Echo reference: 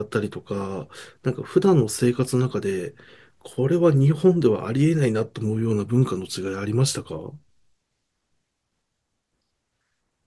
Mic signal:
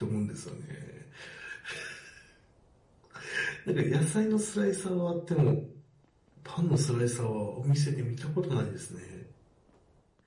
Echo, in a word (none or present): none